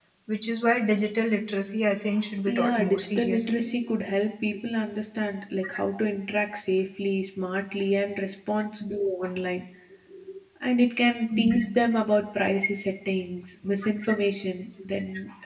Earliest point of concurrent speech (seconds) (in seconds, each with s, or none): 2.5 s